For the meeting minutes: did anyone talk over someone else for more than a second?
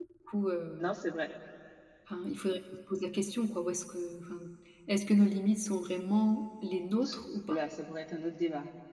No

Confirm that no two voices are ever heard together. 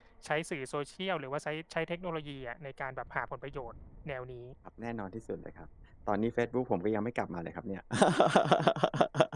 Yes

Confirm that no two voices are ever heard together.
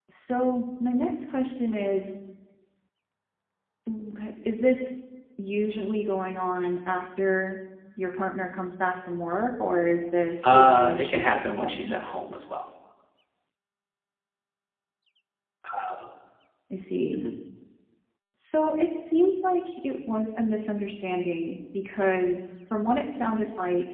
No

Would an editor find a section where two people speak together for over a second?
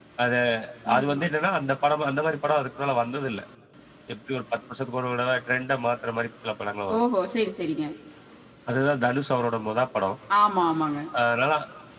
No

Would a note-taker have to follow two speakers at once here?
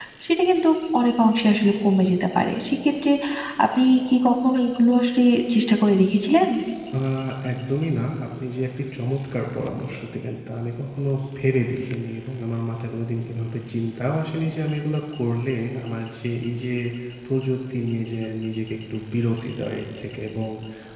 No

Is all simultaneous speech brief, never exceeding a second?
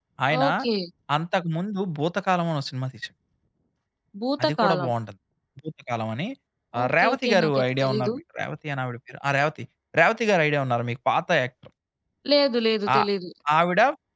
No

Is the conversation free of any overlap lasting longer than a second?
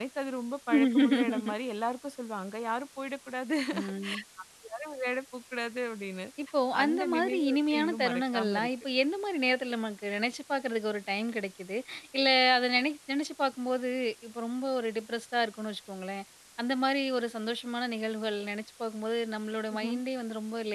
No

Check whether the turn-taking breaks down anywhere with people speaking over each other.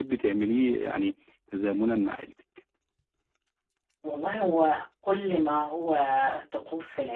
No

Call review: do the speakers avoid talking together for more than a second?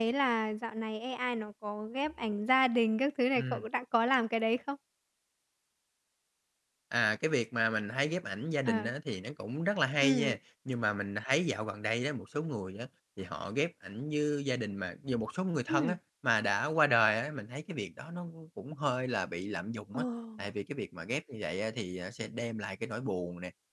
Yes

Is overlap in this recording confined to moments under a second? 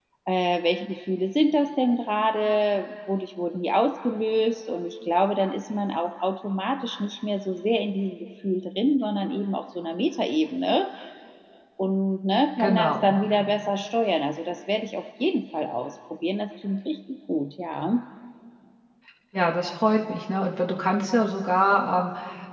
Yes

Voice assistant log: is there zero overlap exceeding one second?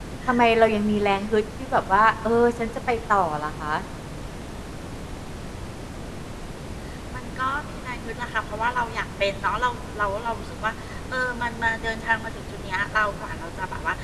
Yes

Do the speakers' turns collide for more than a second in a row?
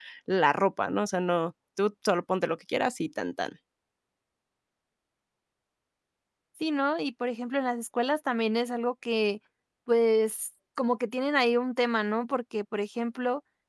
No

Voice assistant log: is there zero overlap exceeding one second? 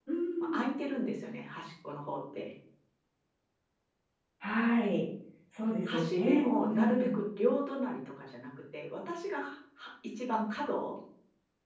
No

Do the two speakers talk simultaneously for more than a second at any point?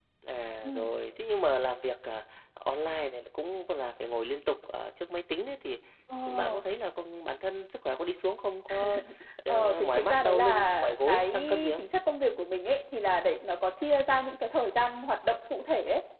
Yes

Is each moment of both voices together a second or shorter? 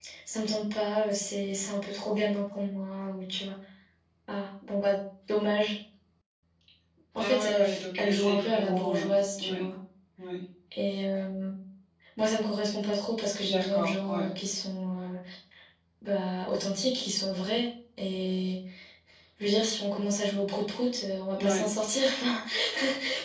No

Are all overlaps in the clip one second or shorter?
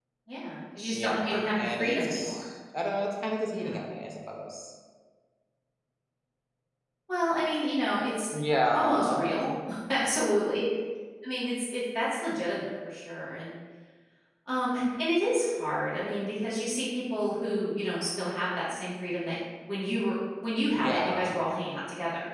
No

